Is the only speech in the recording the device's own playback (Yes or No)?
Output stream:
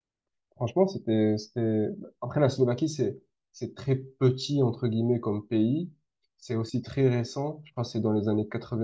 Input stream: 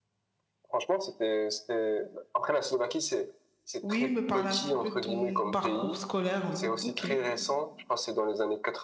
No